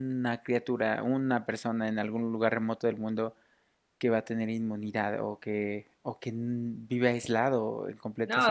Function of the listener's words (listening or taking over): taking over